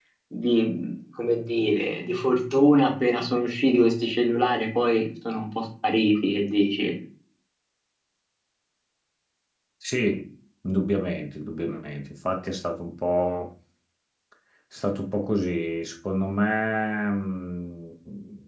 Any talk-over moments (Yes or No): No